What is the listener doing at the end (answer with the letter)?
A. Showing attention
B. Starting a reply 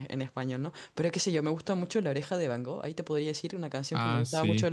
A